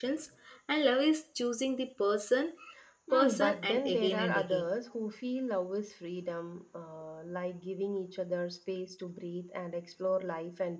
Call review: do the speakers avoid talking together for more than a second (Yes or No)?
No